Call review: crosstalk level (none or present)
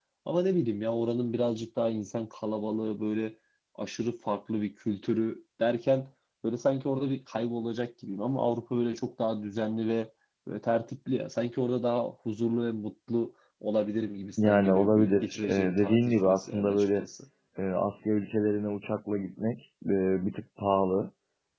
present